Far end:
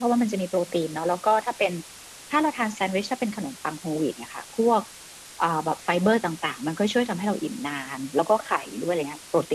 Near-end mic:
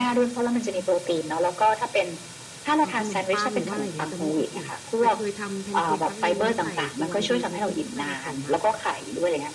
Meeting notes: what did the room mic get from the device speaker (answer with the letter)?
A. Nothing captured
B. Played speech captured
B